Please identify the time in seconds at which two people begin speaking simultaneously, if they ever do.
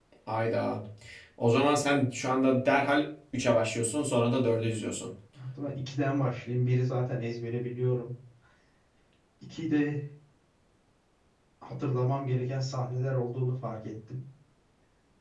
none

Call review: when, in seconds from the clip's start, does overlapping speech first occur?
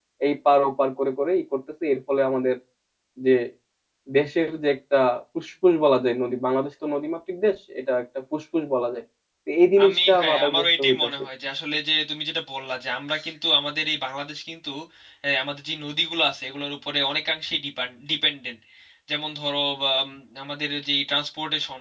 10 s

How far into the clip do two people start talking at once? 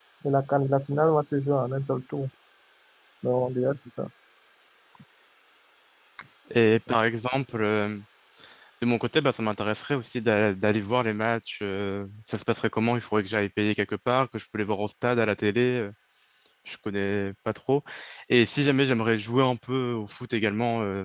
none

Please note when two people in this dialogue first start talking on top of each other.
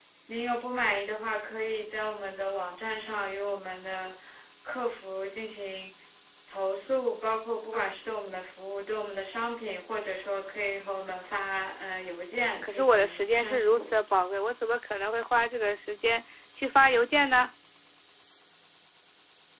13 s

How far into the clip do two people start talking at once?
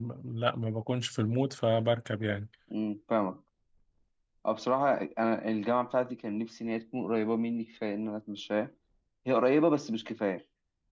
none

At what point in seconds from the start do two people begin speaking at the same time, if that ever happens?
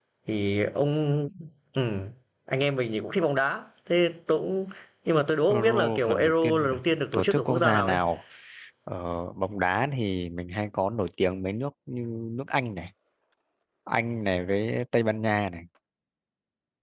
5 s

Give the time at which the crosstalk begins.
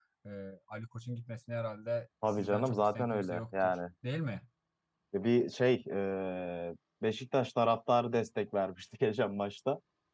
2 s

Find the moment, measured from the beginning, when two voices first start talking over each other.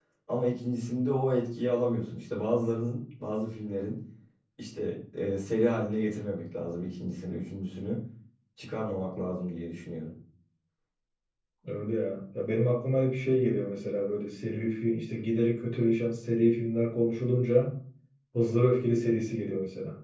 none

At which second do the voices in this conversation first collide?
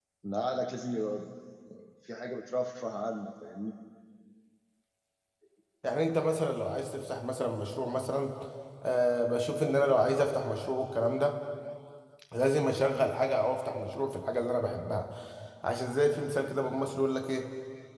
none

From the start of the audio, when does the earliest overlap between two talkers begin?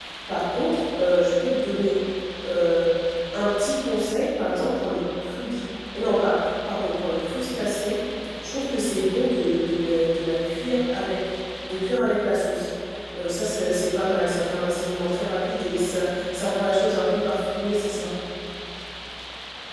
none

